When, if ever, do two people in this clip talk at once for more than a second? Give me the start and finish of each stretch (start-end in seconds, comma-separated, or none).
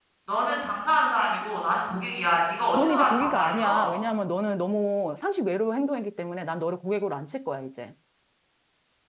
2.7-3.9